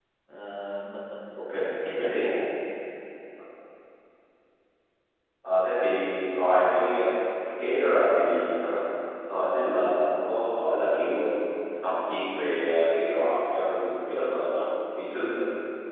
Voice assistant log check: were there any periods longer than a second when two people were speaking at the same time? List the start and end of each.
none

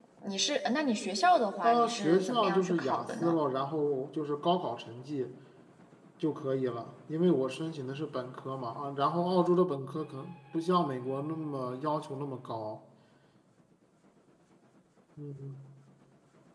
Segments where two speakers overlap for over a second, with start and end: 1.6-3.4

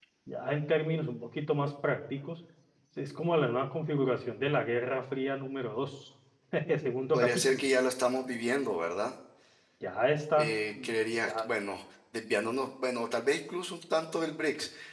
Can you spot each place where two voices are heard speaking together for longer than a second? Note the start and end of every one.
none

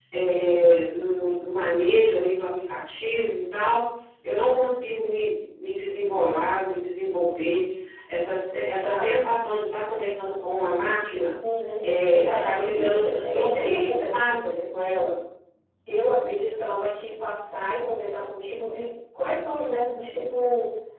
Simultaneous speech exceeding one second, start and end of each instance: 12.3-14.4

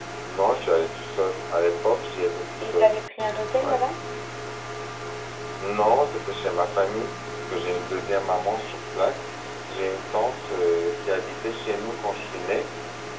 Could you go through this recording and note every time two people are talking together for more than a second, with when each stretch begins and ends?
none

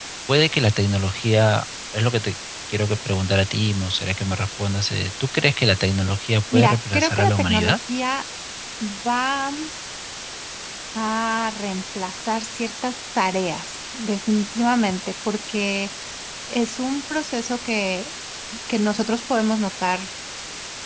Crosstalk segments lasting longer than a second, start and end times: 6.5-7.8

